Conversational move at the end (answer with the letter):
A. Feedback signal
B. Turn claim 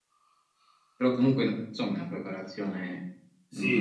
B